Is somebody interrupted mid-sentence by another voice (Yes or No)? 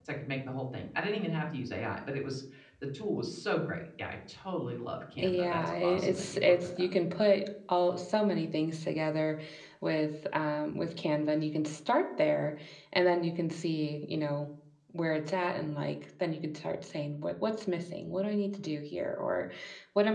Yes